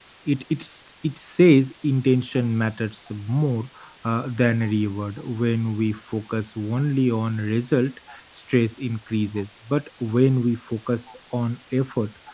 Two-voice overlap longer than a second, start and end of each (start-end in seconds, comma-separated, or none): none